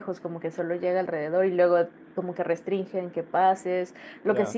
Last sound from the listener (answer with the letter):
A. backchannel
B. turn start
A